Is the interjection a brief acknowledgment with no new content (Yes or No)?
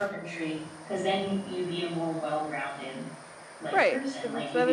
No